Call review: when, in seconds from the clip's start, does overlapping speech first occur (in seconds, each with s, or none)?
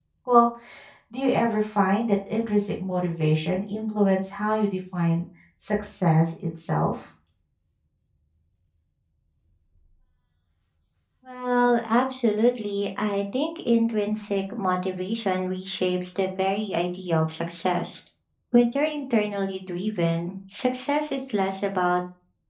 none